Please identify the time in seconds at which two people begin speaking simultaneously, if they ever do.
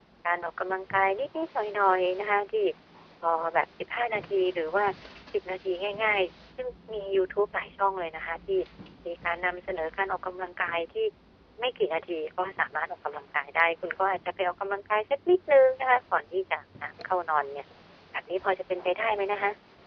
none

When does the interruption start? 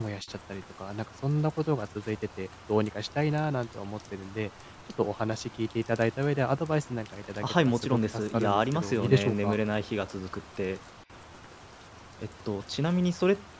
7.3 s

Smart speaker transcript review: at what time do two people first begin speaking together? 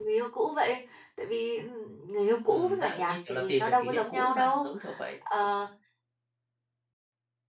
2.5 s

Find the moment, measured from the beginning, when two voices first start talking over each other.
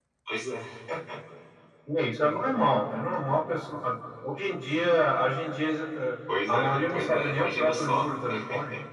6.5 s

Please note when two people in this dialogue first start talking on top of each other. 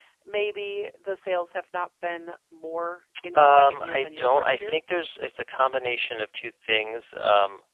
3.3 s

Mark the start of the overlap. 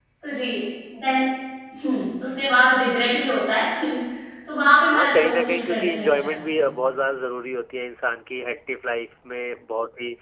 4.9 s

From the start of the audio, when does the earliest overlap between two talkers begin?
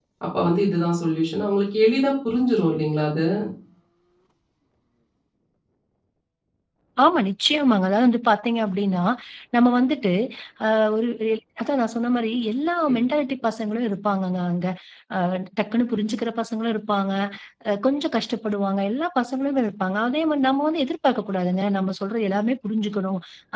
none

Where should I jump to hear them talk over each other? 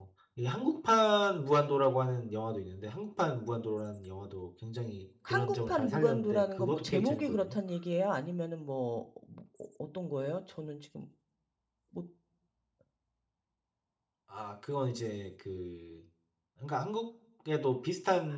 5.3 s

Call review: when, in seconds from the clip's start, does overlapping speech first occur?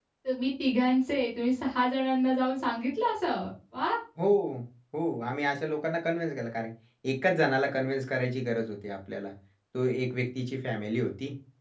none

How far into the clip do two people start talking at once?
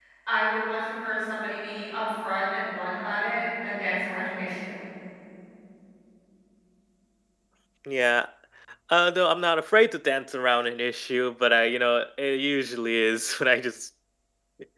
none

